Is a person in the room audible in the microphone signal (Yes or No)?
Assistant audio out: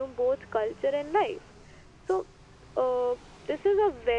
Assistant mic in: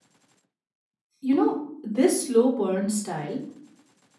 Yes